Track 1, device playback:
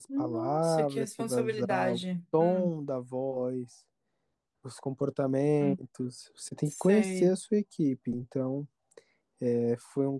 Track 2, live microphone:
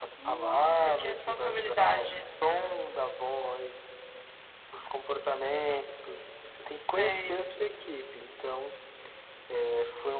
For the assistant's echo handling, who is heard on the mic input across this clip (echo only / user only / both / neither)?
echo only